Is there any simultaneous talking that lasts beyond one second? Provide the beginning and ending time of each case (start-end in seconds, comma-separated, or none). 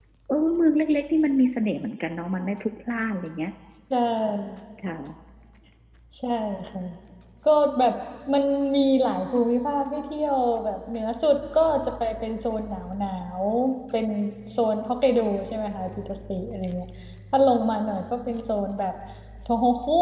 none